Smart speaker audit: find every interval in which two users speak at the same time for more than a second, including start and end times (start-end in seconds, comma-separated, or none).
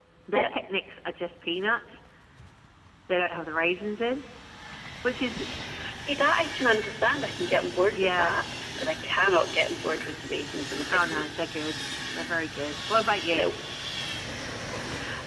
none